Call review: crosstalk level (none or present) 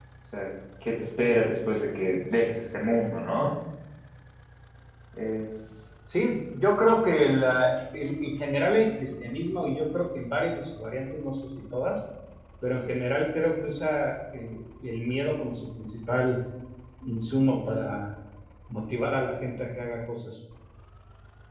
none